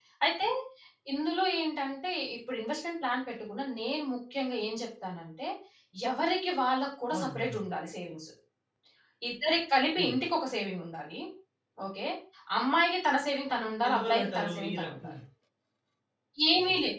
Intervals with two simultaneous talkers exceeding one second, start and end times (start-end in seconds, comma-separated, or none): 13.9-15.1